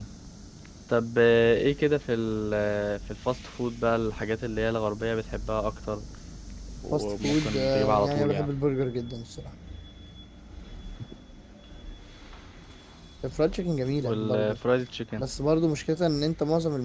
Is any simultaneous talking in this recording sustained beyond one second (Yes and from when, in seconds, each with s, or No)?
Yes, from 6.9 s